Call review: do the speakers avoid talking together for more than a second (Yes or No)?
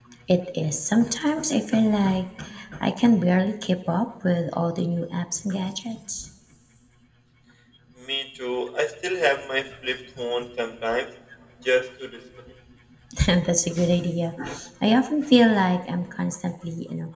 Yes